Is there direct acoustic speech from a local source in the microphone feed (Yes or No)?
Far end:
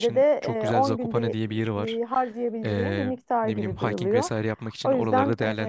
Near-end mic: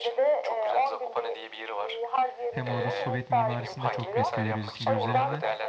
Yes